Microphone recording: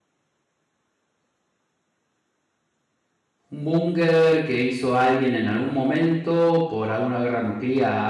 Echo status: none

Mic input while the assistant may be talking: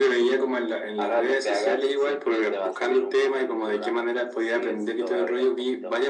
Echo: present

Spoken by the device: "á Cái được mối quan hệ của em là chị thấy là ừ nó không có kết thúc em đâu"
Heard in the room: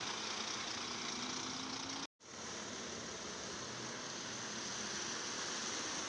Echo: none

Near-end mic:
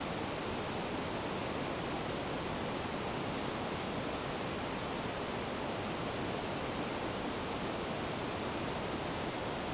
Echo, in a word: none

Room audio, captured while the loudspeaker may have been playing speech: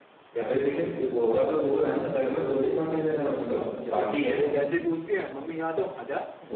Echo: present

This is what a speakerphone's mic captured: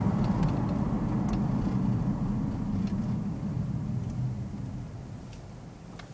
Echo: none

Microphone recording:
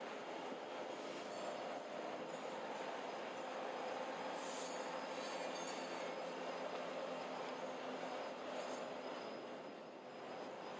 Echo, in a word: none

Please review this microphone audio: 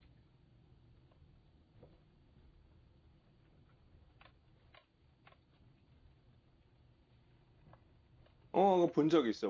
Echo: none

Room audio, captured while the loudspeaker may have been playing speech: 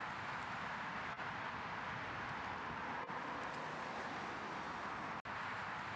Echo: none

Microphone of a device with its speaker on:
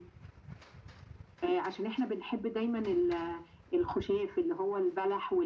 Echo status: present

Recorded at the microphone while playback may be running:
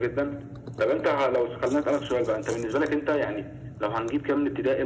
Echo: present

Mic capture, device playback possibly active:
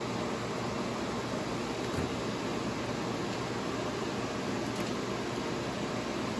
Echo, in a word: none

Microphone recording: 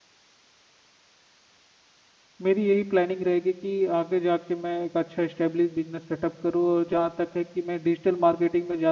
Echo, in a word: none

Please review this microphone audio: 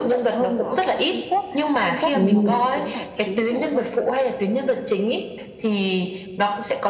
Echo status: present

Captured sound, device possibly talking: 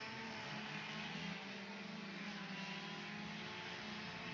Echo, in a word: none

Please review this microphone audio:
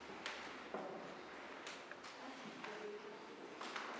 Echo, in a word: none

